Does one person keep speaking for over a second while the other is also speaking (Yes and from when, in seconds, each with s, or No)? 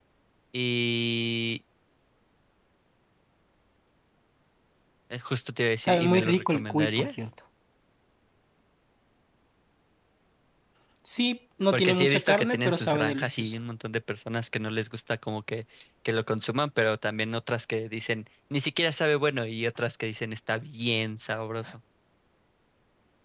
Yes, from 5.8 s